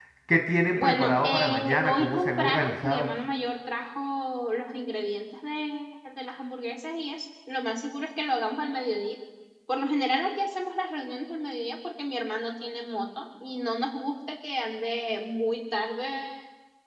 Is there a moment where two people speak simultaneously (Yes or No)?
Yes